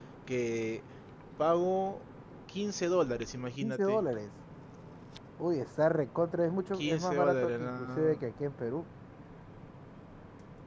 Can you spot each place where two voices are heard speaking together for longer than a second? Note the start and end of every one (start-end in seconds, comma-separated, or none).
6.7-8.2